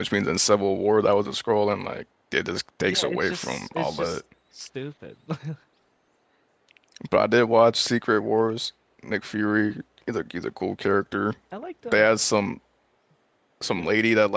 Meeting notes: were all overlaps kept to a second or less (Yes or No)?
No